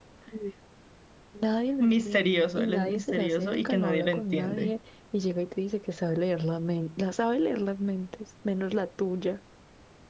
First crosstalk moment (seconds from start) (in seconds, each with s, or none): 1.8 s